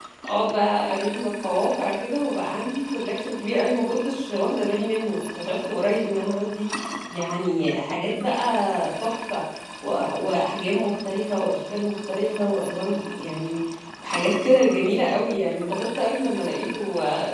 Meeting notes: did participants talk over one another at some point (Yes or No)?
No